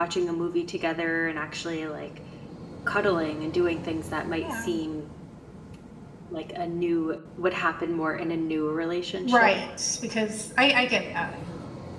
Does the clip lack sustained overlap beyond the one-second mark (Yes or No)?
Yes